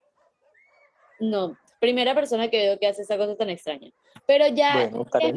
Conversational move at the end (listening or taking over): listening